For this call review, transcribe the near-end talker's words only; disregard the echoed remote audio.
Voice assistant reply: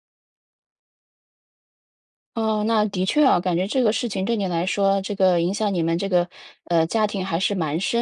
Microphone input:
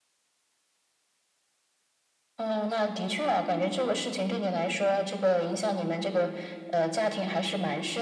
none

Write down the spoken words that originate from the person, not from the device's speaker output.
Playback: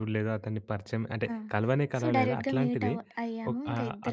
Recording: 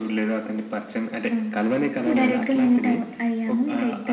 none

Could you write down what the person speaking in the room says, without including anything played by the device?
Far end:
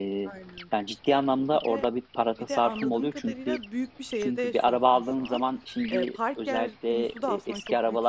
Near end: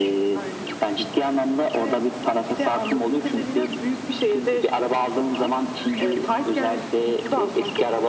none

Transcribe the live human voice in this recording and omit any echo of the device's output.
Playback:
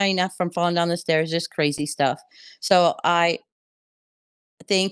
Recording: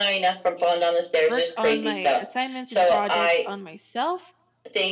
work on my assignments and projects on myself

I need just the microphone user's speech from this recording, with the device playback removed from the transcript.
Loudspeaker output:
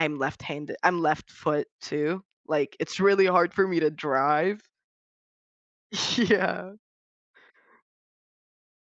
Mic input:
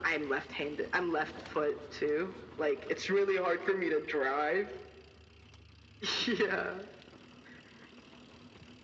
none

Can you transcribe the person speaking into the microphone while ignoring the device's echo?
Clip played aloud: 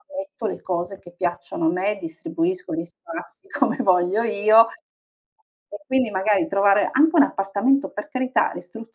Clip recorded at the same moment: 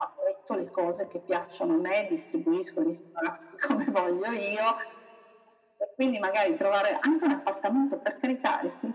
none

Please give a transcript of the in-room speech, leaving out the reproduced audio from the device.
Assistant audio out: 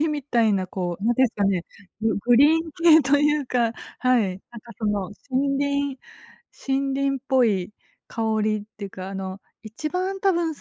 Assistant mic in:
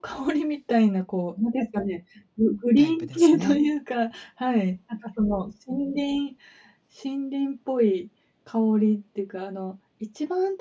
タイプですね。

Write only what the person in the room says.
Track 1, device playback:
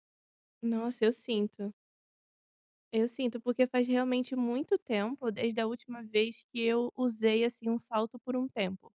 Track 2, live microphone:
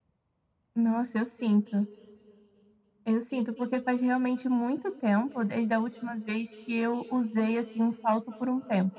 none

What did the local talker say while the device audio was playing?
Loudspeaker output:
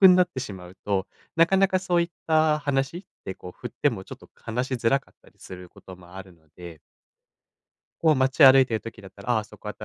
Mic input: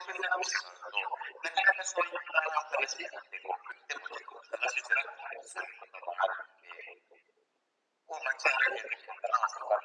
none

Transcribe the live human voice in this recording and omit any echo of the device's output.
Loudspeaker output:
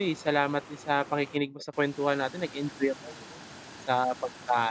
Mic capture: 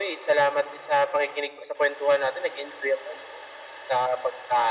none

